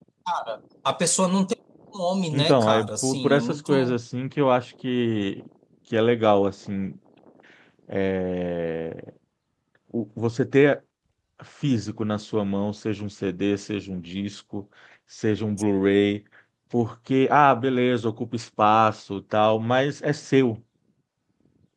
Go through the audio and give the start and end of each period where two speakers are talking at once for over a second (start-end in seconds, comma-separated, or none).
2.3-4.0